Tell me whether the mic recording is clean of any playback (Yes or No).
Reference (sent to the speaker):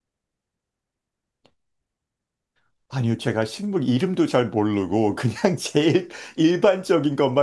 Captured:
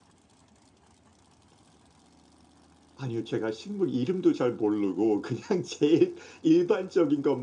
No